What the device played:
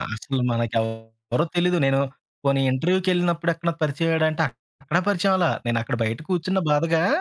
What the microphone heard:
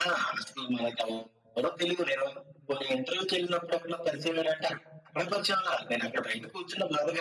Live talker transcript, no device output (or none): none